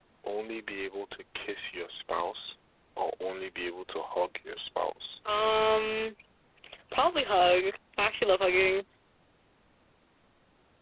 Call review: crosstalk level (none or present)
none